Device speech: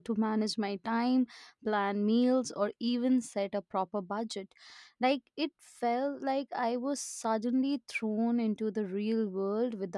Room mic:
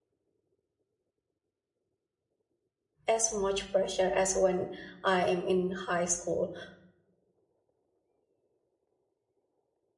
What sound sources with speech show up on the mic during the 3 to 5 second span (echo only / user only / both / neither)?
user only